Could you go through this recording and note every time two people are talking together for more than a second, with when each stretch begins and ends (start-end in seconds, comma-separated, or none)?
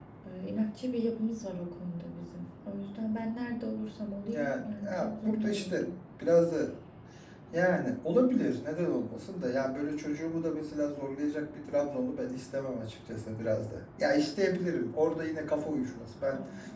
4.2-5.8